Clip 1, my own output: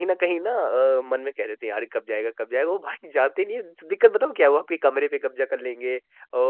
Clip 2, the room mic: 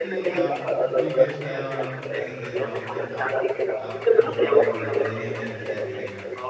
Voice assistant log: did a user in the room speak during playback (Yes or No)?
Yes